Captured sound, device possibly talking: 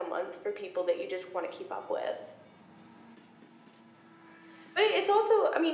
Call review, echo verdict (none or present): present